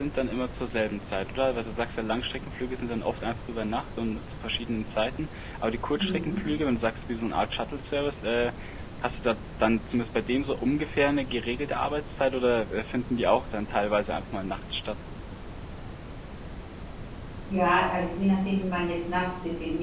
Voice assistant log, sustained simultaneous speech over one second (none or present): none